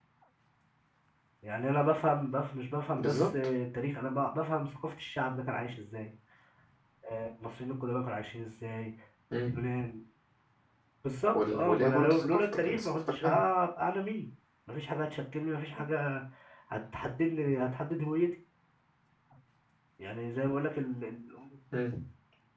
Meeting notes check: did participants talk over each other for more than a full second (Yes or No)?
Yes